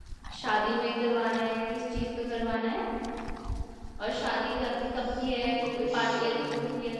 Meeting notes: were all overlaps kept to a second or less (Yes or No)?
No